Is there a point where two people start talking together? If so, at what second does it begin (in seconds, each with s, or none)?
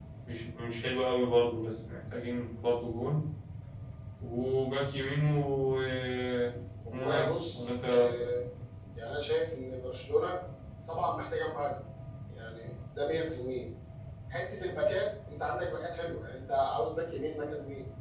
6.9 s